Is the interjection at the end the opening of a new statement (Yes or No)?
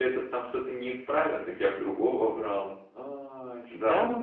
Yes